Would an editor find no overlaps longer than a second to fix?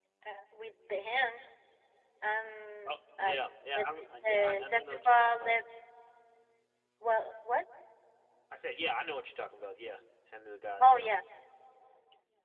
No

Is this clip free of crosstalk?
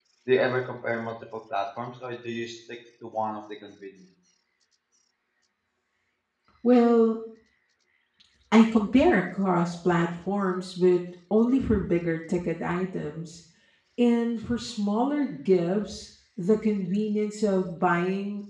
Yes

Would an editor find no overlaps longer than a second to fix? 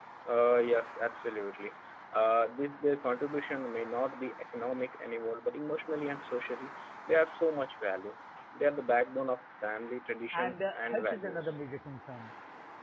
No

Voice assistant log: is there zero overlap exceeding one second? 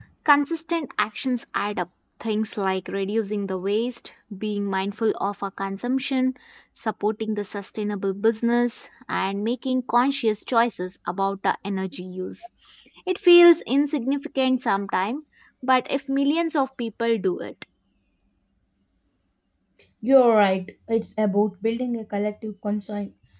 Yes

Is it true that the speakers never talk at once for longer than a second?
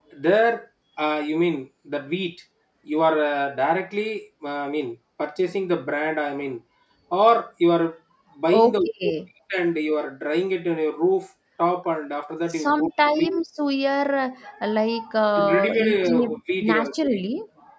No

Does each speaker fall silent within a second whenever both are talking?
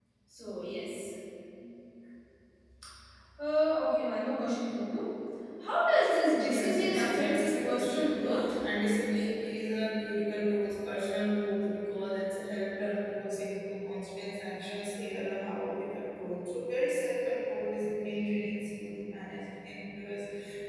No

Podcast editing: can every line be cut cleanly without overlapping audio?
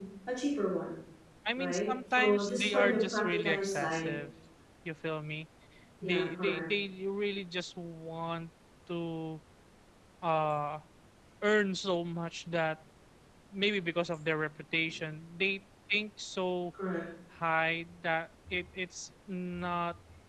No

